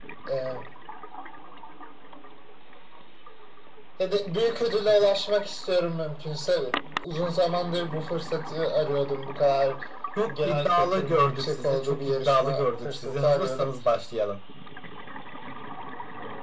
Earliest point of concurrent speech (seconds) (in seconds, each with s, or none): 10.4 s